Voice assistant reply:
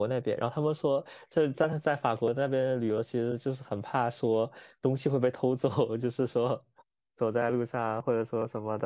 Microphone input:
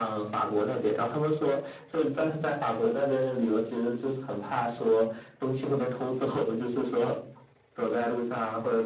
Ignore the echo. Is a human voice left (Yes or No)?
No